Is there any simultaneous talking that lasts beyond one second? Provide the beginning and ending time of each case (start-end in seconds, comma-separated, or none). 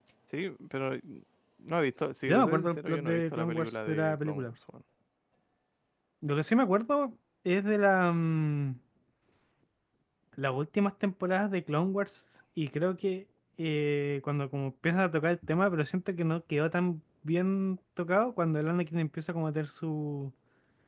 2.2-4.5